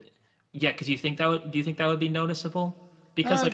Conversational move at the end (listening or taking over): listening